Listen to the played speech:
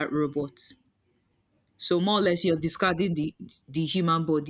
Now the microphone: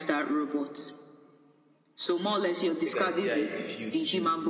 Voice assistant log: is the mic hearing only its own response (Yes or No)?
No